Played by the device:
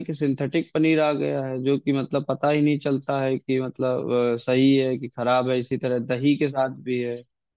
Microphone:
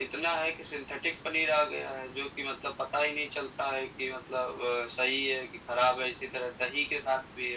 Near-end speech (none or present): none